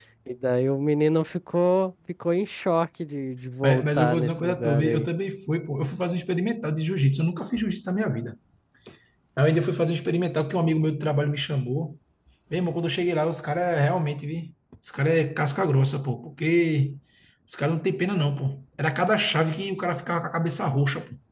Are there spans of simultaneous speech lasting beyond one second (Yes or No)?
Yes